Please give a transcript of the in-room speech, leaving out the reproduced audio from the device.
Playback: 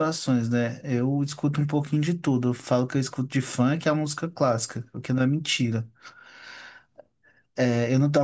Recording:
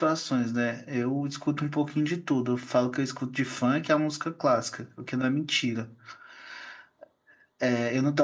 none

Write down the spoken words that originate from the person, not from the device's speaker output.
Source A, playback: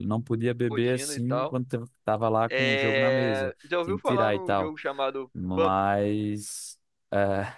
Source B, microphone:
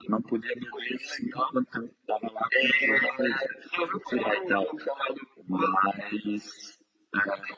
none

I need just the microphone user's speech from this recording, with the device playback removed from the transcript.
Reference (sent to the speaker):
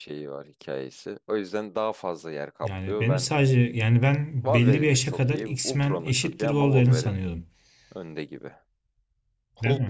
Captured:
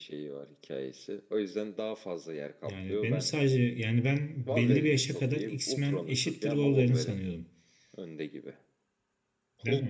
none

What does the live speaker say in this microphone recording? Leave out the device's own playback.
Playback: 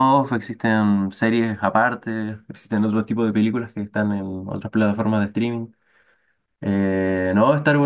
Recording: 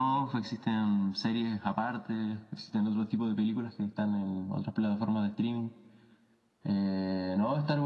none

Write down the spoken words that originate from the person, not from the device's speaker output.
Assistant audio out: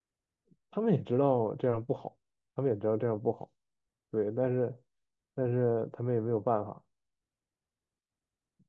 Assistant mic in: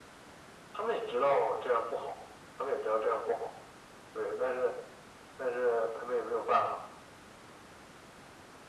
none

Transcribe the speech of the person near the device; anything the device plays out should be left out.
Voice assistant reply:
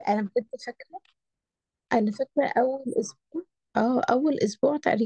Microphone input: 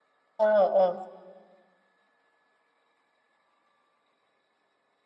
اه اه

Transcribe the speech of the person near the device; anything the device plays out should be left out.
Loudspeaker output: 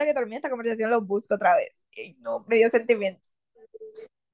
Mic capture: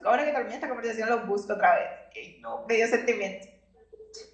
none

